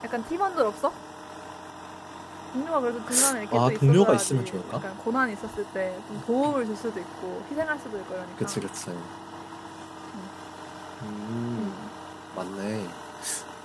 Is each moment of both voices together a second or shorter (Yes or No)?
No